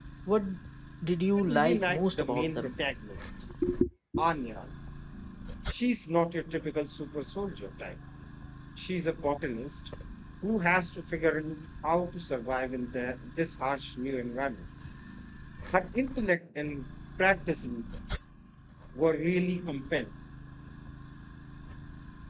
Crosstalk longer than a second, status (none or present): present